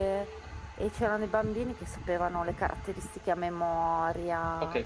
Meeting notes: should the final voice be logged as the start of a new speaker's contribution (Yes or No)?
Yes